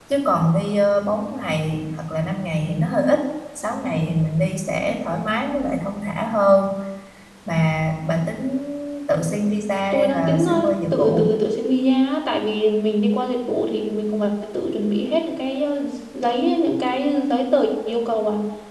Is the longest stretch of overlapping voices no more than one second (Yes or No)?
No